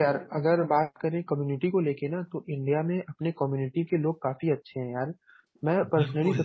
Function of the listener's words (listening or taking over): listening